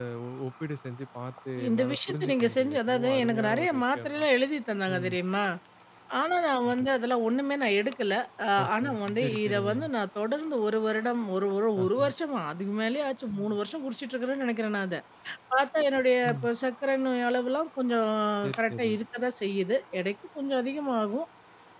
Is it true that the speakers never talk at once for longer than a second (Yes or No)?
No